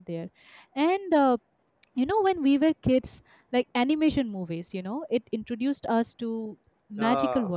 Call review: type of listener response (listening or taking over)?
listening